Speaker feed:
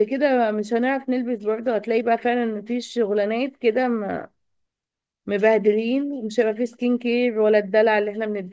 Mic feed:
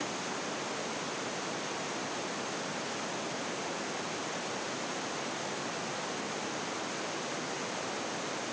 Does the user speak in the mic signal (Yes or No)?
No